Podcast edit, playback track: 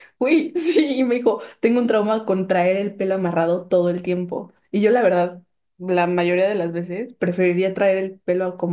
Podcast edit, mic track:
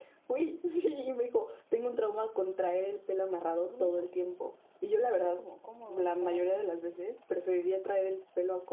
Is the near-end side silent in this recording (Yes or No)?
No